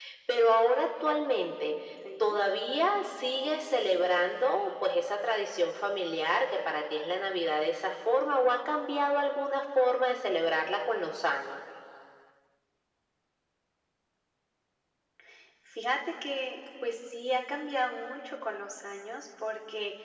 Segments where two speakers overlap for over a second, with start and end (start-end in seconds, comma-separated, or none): none